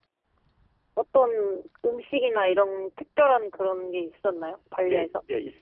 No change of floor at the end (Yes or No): No